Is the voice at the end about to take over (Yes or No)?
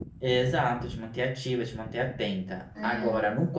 No